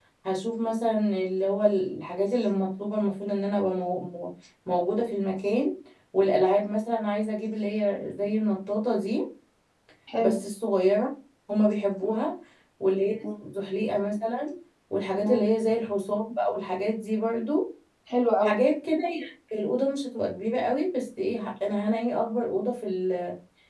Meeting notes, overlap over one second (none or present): none